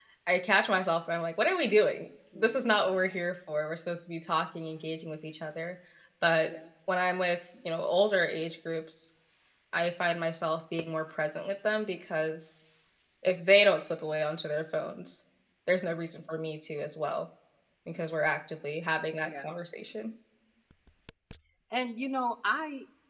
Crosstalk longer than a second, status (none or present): none